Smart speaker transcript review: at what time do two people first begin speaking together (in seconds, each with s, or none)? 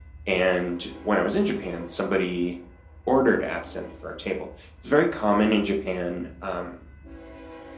none